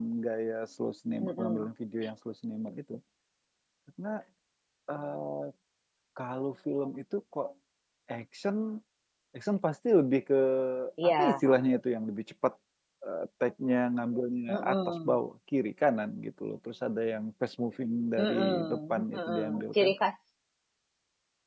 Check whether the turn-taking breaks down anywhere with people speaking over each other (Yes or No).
Yes